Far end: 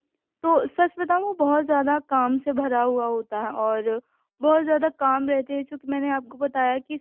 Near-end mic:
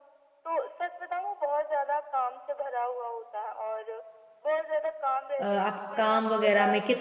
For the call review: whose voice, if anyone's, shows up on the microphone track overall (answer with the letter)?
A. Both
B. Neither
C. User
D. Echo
A